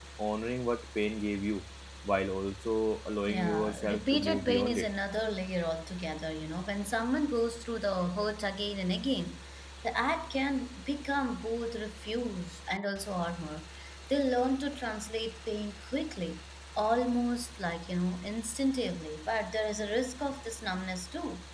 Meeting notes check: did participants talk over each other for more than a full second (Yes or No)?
Yes